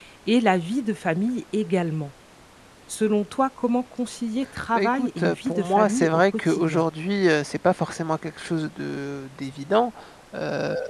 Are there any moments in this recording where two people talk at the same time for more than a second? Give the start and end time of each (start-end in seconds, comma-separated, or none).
4.7-6.8